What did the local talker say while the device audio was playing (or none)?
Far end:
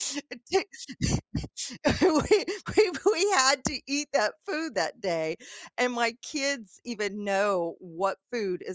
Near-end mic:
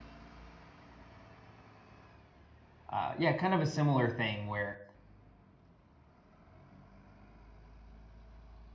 uh, yeah, kind of a similar thing where